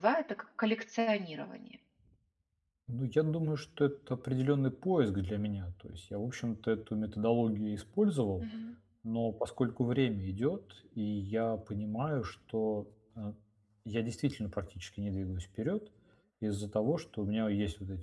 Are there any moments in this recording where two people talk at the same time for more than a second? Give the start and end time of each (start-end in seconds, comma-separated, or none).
none